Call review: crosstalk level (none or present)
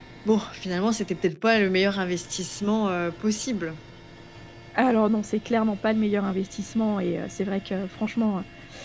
none